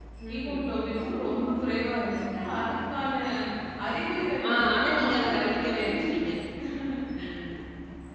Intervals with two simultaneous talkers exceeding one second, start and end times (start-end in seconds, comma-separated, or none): 4.5-6.2